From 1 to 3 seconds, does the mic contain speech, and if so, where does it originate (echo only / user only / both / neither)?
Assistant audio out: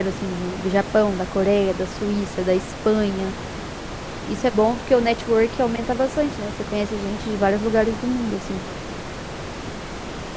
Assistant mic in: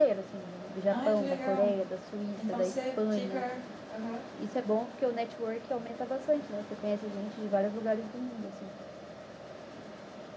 both